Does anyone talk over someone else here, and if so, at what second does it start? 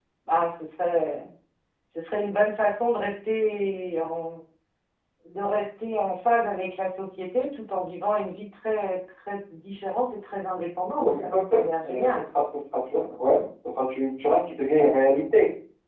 11.0 s

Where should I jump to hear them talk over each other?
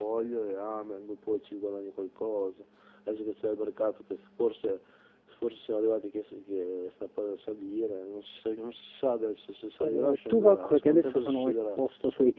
9.8 s

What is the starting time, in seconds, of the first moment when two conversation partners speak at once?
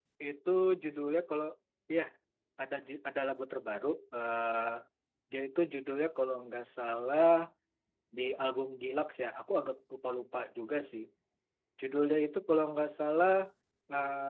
none

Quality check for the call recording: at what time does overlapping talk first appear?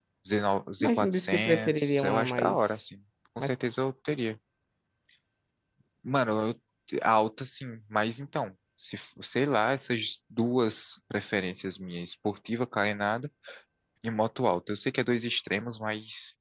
0.8 s

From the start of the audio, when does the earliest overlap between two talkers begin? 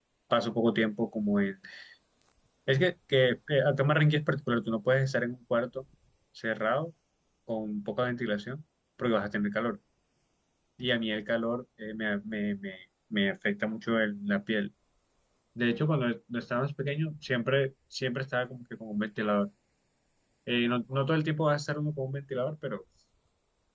none

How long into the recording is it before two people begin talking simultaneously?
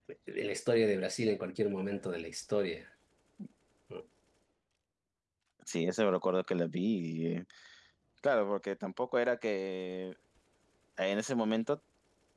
none

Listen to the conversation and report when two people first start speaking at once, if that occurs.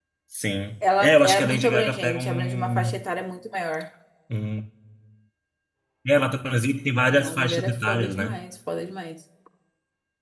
1.0 s

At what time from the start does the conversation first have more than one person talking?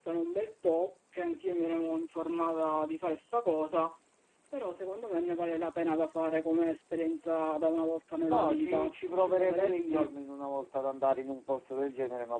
8.2 s

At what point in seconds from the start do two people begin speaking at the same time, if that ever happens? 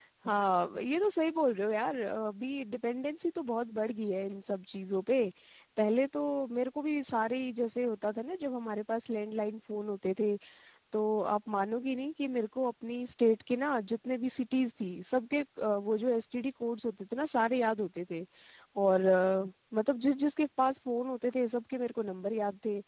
none

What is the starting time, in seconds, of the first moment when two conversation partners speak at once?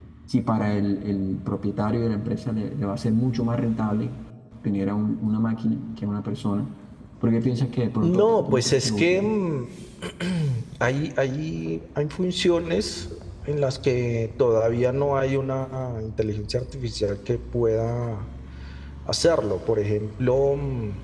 8.0 s

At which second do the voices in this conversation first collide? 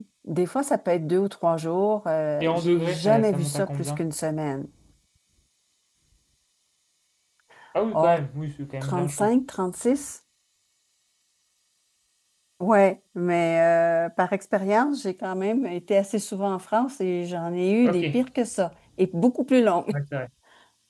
2.4 s

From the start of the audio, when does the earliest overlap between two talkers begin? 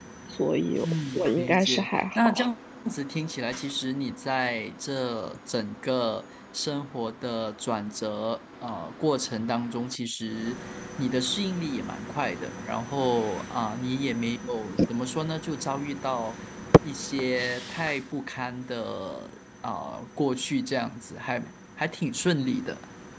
0.8 s

